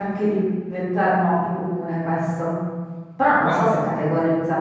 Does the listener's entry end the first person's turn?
No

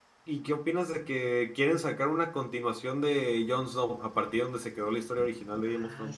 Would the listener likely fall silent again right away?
No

